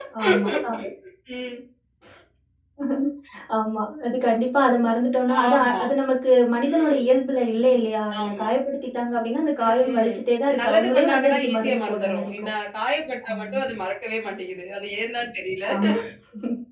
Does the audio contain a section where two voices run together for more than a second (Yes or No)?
Yes